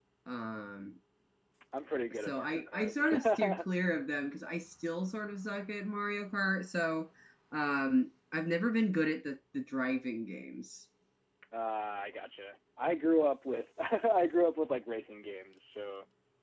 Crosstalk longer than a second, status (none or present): present